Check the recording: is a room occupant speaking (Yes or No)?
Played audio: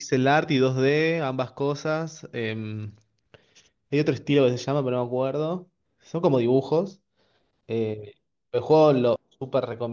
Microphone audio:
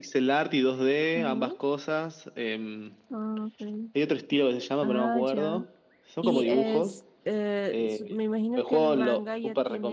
Yes